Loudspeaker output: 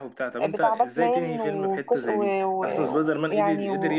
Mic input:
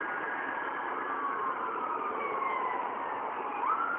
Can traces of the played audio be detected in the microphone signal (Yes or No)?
No